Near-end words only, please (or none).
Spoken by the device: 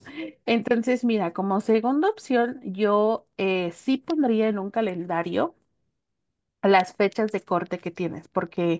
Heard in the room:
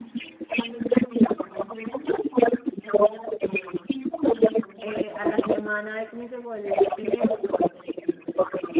eh, a la semana de que me llegó el dinero,